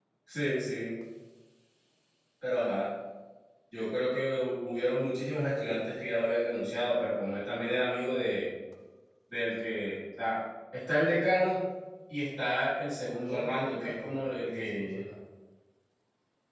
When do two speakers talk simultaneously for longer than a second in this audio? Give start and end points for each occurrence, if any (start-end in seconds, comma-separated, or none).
13.1-15.0